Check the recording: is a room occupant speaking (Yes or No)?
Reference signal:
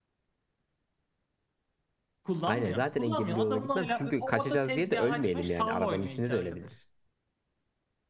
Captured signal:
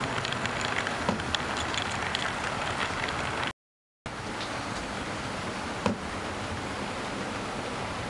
No